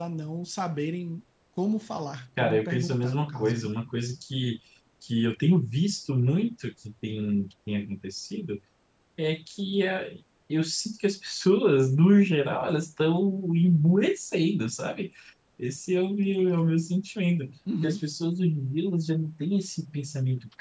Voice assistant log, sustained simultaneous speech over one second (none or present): present